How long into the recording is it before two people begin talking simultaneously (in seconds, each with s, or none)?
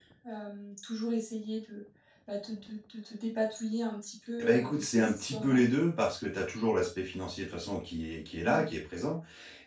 4.4 s